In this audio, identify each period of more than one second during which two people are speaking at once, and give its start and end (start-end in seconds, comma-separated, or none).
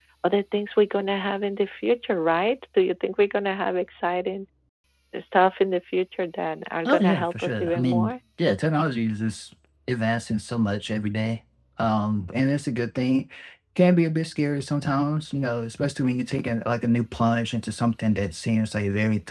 6.8-8.1